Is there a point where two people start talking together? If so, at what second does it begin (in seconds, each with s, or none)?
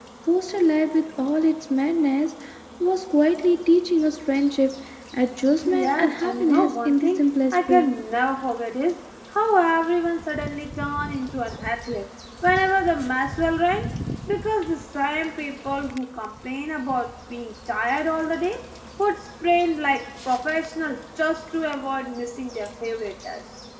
5.6 s